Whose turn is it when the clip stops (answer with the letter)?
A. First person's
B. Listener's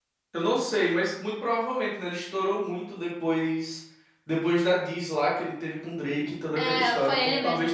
B